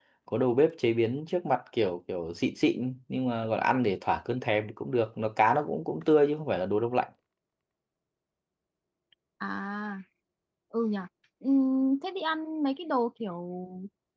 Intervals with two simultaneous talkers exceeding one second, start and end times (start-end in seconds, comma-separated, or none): none